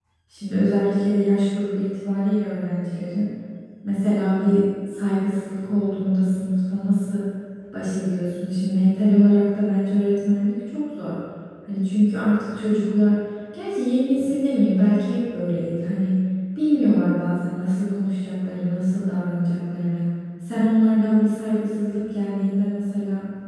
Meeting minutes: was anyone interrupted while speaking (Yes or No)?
No